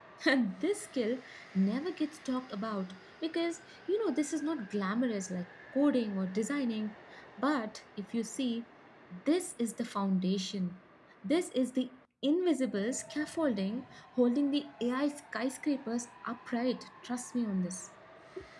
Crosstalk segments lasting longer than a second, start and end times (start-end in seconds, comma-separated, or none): none